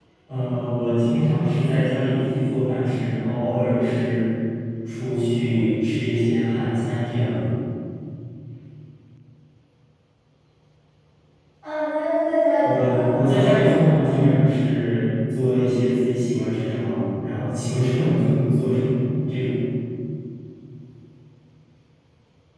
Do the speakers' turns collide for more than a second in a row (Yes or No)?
Yes